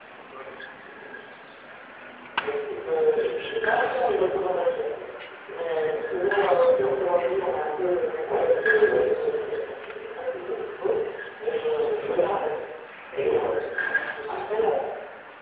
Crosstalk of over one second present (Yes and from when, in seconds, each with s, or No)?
No